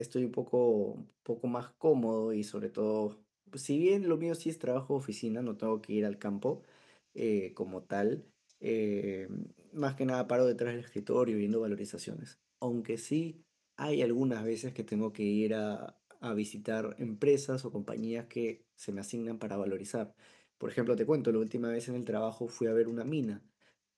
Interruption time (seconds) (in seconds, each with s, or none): none